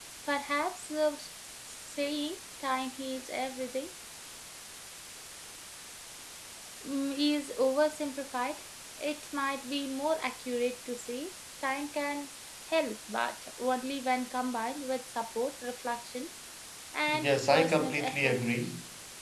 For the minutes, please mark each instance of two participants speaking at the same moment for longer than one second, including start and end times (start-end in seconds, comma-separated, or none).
17.2-18.6